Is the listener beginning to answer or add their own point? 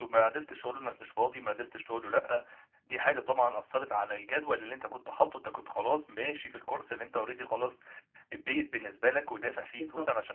No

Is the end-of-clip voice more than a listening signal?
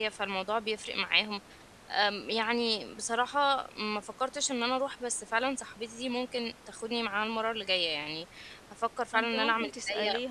Yes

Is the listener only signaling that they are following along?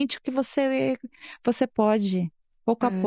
No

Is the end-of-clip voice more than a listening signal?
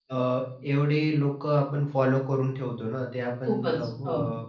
No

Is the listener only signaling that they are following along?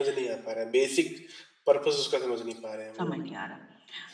No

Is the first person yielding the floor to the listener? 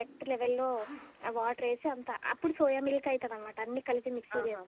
No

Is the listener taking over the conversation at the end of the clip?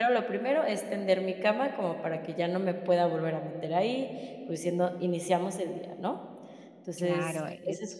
Yes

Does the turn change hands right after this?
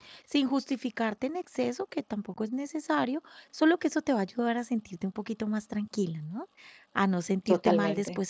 No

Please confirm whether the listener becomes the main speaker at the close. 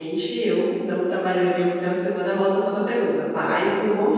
No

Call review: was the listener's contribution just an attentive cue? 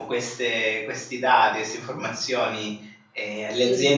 Yes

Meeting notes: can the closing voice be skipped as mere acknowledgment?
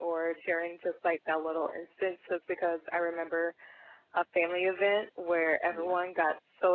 Yes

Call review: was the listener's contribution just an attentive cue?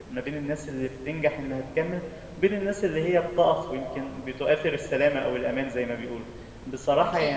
Yes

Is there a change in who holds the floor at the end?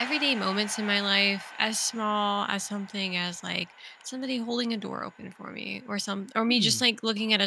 No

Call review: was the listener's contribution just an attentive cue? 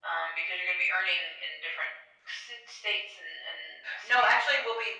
No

